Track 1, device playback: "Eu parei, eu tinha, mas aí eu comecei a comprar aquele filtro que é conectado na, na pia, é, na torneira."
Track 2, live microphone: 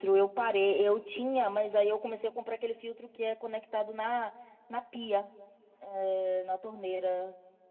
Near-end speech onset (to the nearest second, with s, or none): none